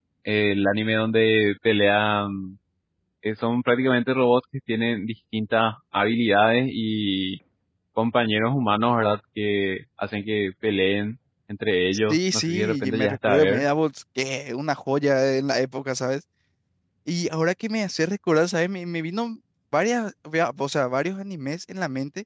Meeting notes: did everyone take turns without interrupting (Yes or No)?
No